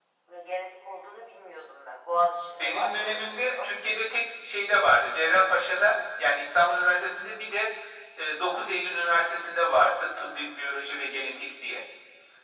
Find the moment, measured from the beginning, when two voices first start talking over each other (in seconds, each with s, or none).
2.5 s